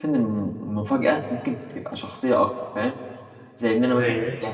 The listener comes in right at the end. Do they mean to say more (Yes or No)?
No